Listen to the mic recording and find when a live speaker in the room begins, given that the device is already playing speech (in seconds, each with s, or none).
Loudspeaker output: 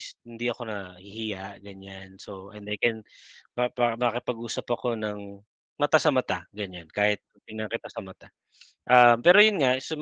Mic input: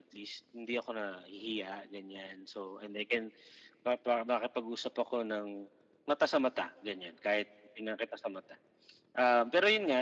none